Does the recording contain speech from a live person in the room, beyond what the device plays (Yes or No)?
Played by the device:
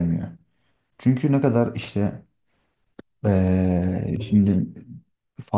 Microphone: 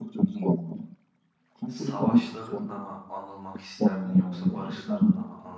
Yes